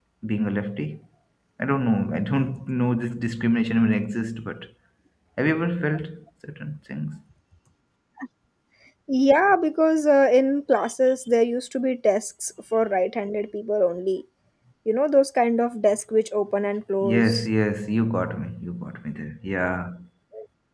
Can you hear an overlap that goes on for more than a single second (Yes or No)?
No